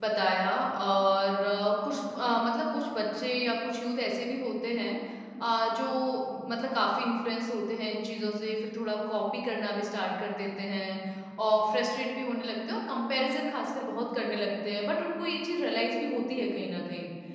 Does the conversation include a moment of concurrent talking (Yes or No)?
No